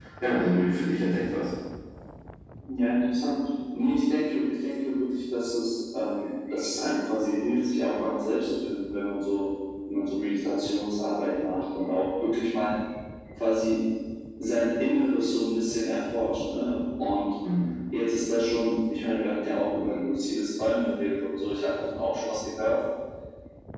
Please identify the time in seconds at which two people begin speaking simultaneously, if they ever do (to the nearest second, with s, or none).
none